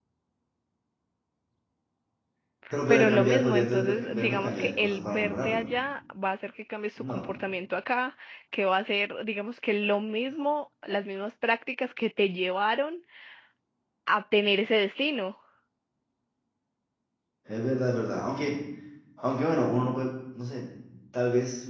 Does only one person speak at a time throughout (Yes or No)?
No